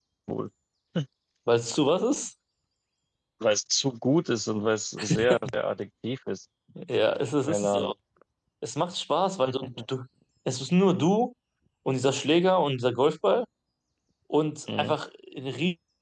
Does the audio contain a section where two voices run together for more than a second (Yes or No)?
No